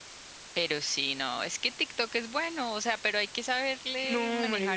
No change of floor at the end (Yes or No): No